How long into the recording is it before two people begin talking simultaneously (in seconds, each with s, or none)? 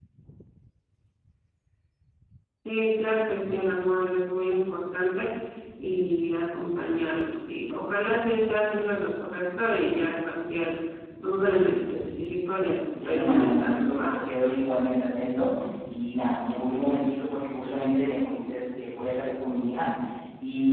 13.0 s